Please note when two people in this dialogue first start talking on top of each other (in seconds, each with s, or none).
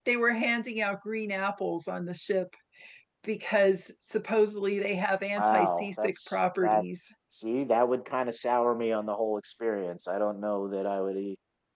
5.4 s